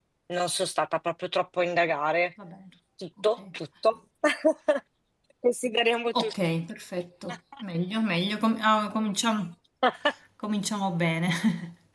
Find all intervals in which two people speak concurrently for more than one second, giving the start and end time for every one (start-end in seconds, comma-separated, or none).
none